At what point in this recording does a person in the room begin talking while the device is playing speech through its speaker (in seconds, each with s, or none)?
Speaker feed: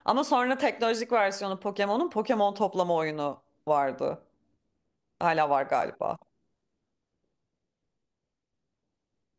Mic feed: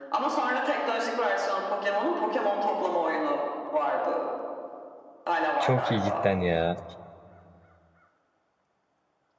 5.6 s